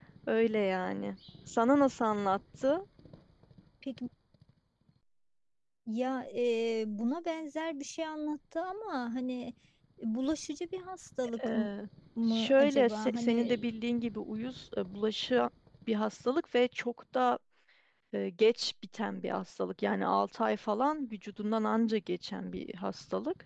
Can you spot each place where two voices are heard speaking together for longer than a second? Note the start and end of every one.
12.3-13.6

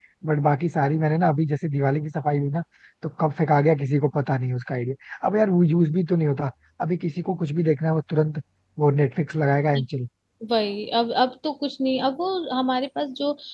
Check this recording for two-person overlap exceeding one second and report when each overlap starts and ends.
none

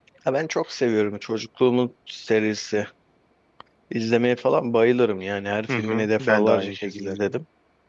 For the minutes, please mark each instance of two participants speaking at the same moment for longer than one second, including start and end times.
5.7-7.3

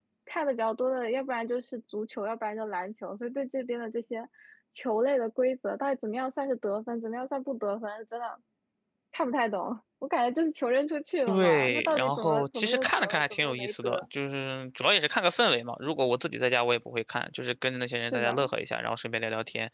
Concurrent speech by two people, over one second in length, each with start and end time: 11.3-14.1

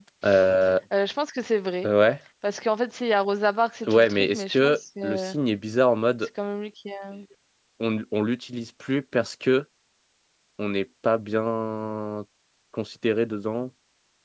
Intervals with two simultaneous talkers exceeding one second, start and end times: 3.9-5.3

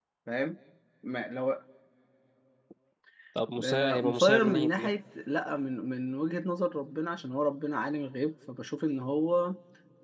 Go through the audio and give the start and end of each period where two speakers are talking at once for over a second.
3.6-4.9

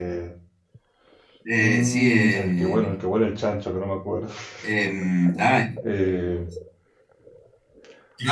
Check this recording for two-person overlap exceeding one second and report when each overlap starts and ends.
1.6-2.9

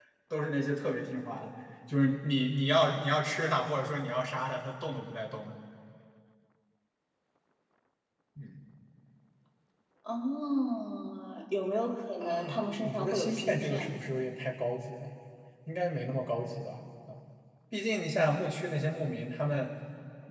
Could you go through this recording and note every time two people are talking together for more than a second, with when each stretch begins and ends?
12.2-13.9

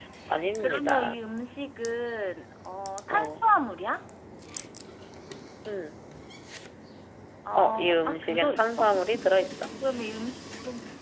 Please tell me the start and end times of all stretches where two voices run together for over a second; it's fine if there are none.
7.6-8.9

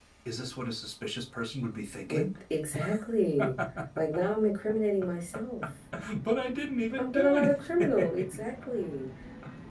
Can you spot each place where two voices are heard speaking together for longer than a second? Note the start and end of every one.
7.0-8.4

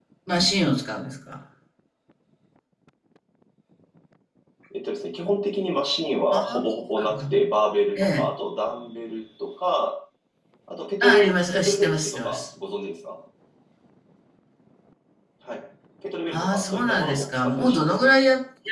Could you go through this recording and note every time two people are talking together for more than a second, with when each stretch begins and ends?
11.0-12.4, 16.3-18.1

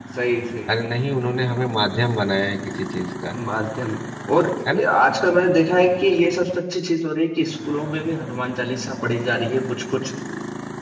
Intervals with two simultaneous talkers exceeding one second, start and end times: none

